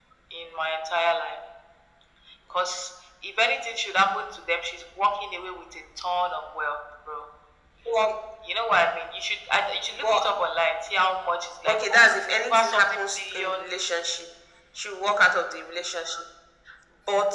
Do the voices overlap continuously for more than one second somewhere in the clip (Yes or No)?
Yes